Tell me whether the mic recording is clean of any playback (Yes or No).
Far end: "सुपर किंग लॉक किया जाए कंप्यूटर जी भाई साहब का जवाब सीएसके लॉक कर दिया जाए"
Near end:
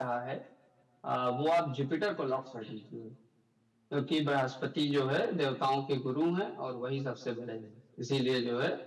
Yes